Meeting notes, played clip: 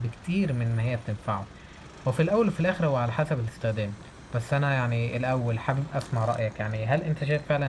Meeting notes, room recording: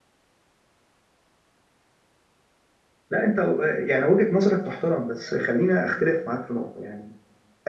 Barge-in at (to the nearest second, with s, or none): 3 s